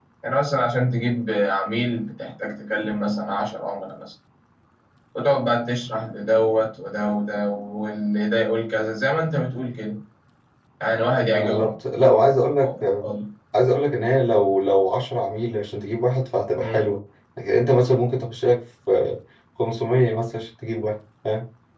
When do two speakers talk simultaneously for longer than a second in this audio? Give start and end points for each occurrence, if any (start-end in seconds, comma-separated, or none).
none